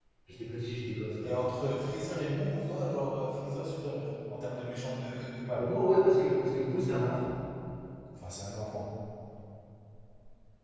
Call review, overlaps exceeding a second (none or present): none